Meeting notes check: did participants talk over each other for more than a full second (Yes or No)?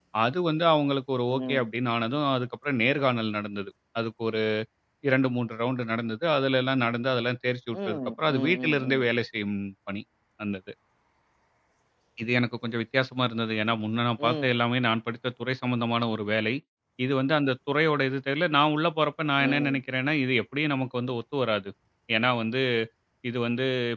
Yes